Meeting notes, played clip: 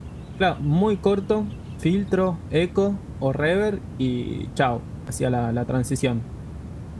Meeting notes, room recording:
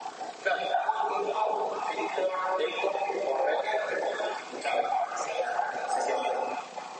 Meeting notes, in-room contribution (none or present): none